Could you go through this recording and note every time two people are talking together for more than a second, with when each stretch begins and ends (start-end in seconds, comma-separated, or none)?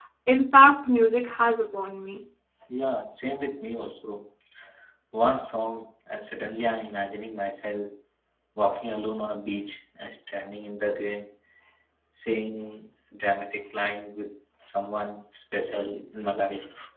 none